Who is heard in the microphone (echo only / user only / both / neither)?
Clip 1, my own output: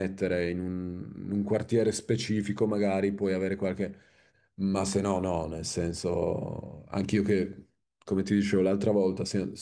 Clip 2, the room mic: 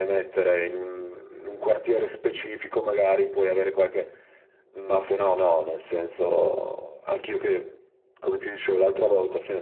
echo only